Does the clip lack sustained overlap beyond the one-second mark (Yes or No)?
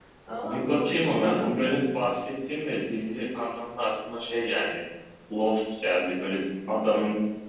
No